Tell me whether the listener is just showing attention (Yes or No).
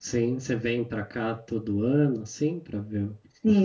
No